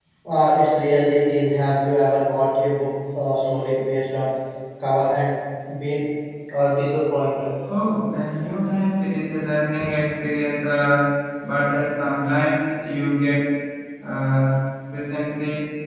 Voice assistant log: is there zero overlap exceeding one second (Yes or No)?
Yes